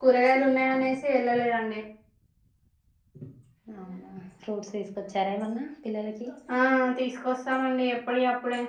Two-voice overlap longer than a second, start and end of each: none

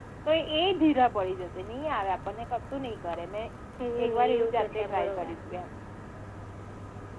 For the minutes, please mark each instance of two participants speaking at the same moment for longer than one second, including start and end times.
4.0-5.3

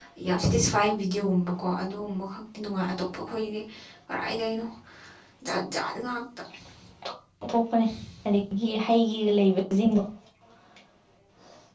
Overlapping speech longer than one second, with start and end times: none

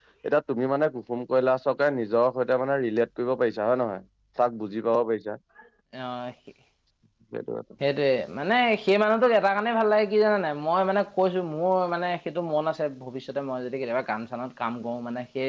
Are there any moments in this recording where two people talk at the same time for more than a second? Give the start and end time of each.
none

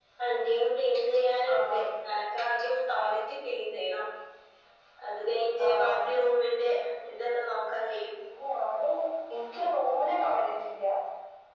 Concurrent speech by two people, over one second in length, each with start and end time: none

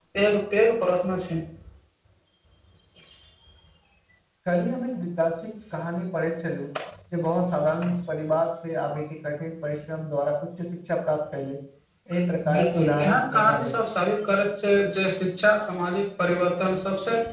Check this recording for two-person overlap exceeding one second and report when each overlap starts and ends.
12.5-13.7

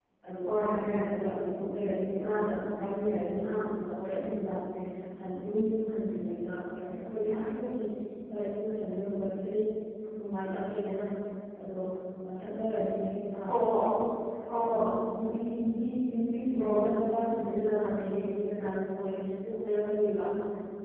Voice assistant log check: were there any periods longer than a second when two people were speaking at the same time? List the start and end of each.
none

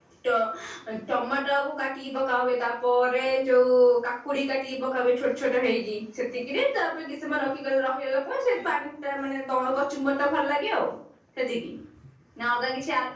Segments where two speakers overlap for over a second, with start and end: none

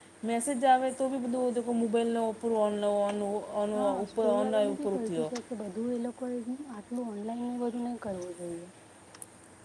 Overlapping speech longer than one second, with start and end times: 4.0-5.2

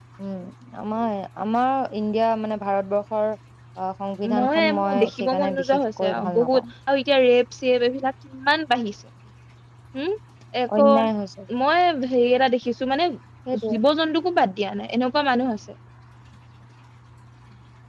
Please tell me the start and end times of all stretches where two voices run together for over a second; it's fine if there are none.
4.4-6.6

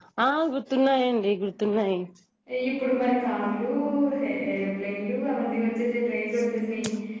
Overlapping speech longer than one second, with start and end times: none

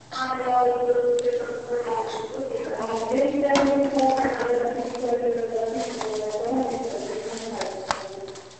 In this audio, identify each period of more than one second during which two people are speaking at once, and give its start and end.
none

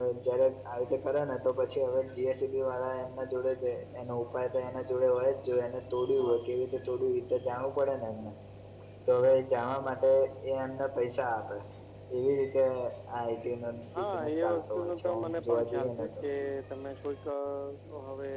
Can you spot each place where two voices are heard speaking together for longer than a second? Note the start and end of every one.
14.0-16.1

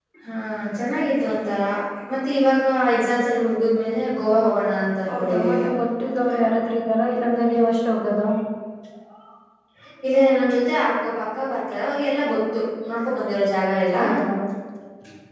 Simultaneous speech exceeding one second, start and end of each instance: none

